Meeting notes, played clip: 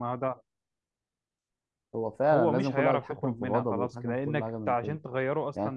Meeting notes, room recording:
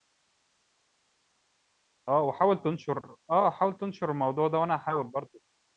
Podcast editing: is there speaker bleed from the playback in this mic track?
No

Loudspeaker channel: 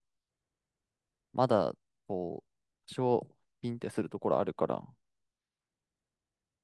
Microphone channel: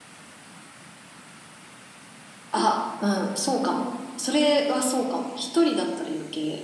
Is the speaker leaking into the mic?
No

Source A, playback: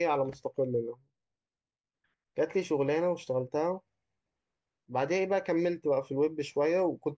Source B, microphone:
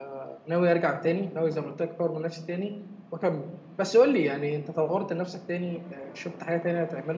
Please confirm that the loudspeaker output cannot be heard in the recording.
Yes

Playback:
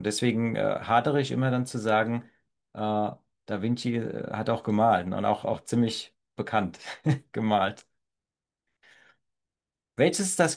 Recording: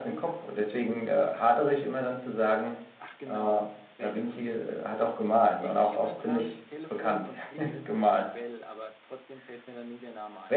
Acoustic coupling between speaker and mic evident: Yes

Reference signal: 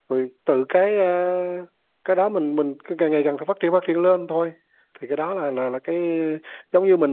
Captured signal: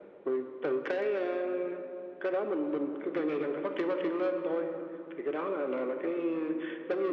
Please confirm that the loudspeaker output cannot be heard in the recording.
No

